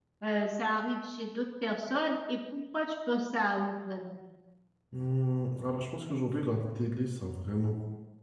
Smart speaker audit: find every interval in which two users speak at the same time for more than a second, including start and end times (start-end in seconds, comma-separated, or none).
none